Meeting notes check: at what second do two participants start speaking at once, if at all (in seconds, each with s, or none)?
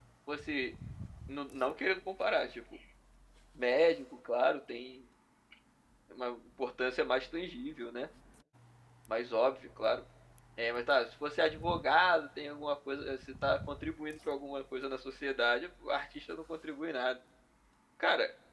none